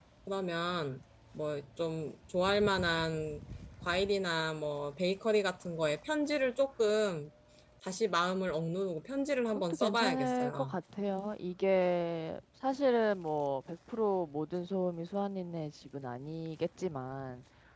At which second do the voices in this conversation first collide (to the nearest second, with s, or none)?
10 s